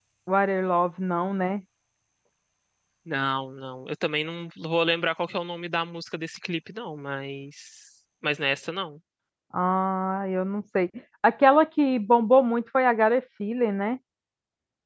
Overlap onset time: none

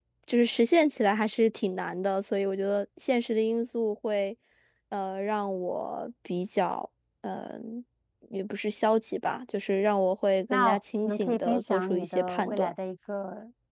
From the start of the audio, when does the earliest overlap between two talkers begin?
10.5 s

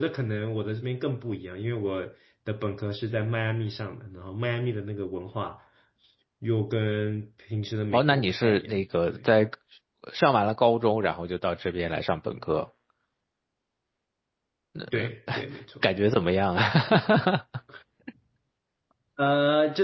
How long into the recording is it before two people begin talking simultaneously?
7.9 s

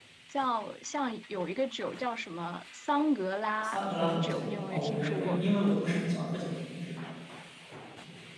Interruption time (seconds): 3.6 s

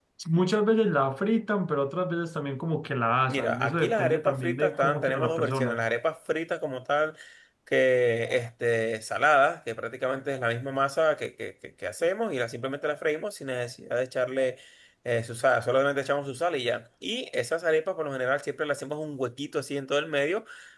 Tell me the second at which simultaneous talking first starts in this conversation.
3.3 s

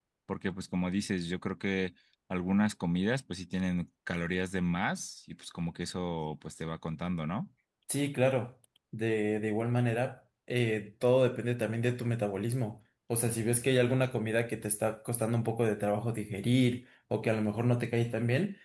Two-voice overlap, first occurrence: none

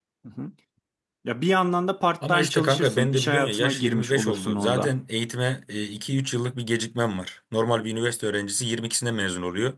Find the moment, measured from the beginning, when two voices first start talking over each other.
2.2 s

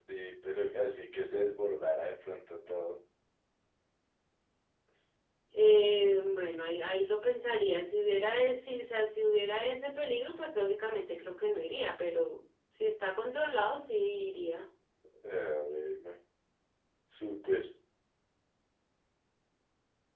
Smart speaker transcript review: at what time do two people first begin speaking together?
none

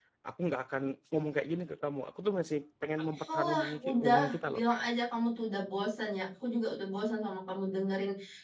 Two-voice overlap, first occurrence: 3.1 s

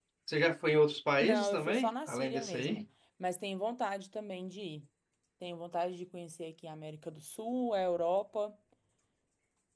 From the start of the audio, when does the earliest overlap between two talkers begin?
1.2 s

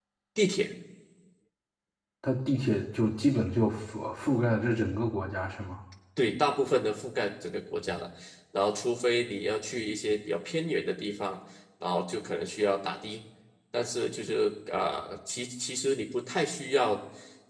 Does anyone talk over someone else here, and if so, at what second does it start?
none

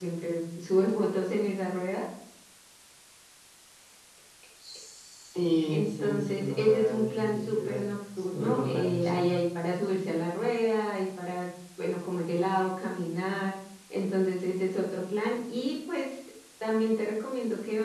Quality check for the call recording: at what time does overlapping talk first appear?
5.7 s

